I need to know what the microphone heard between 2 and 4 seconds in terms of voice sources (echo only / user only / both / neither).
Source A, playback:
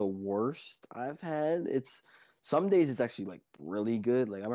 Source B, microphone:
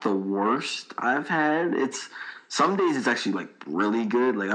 echo only